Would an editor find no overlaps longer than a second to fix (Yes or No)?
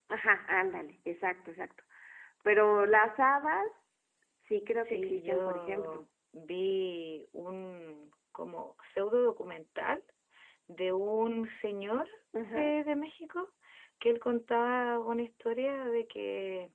No